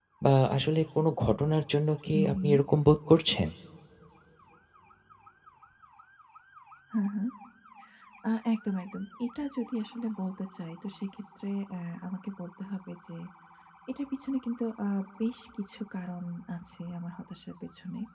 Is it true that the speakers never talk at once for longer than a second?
Yes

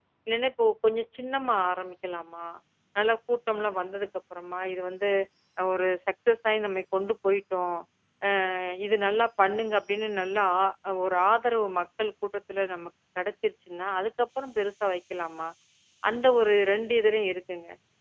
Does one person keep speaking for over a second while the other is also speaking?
No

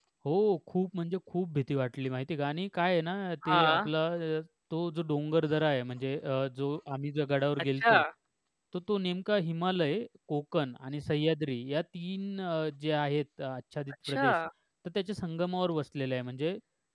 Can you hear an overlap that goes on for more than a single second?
No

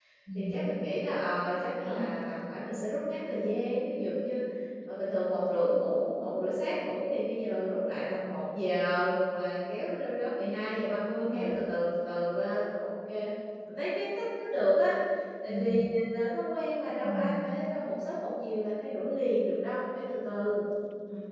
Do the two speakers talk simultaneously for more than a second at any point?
No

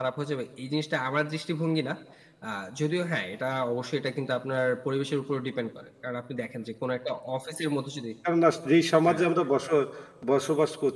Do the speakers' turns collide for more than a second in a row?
No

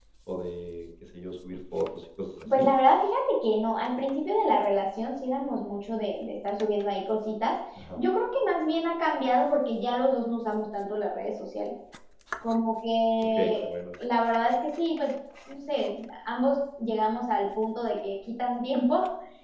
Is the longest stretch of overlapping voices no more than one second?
Yes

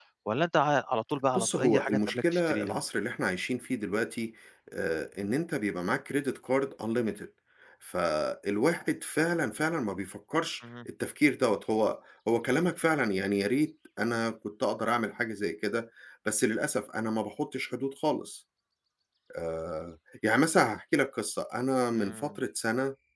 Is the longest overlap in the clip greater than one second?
Yes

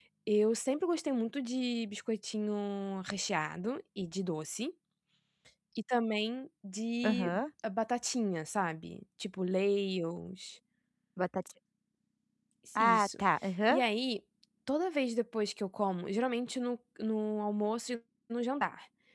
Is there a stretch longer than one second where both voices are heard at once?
No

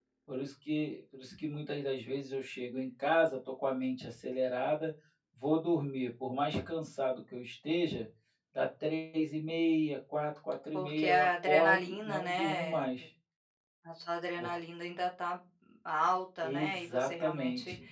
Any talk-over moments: Yes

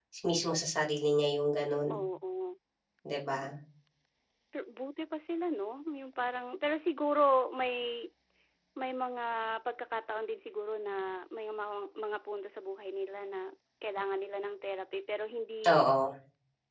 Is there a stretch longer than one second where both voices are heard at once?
No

